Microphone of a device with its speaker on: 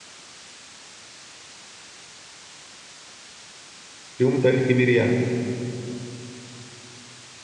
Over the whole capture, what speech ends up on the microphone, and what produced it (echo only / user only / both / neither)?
user only